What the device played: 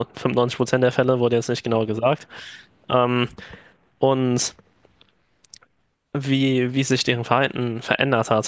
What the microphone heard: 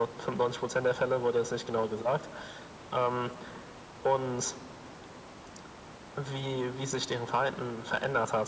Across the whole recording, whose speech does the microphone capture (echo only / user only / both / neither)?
echo only